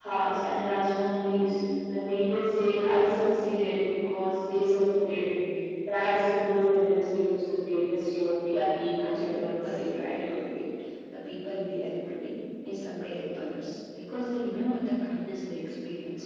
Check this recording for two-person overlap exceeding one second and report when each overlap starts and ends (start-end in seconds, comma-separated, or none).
8.5-10.1